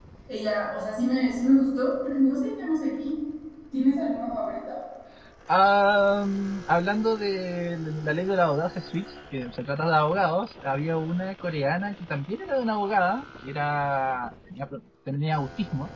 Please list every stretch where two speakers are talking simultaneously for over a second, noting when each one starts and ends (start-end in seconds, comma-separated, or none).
none